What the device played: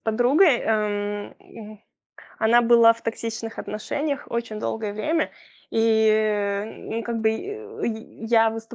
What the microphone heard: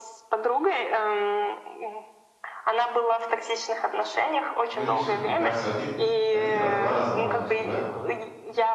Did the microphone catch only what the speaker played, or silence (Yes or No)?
No